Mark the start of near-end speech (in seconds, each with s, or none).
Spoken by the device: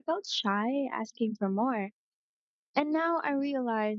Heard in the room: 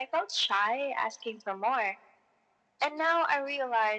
none